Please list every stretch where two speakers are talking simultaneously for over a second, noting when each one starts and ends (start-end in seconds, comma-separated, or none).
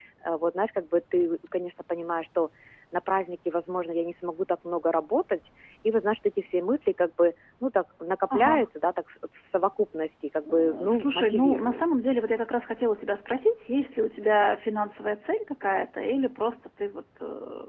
10.4-11.8